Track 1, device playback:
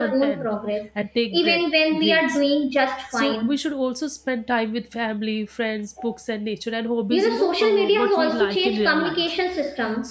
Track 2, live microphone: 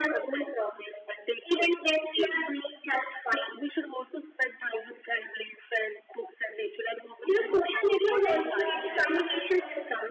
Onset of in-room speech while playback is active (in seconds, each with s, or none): 8.2 s